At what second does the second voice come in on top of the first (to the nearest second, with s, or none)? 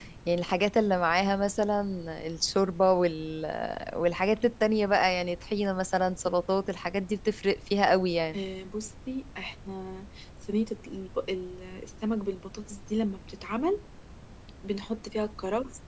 none